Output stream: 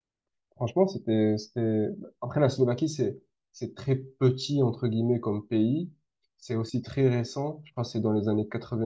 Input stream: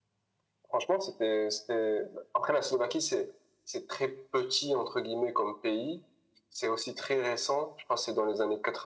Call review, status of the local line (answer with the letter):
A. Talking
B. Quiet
B